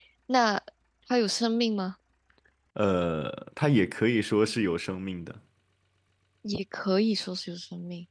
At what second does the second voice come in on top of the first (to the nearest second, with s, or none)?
none